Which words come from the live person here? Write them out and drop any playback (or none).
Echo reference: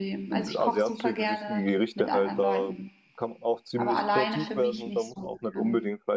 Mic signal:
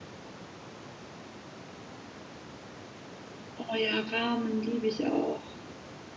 Oh ja, Ramen liebe ich auch.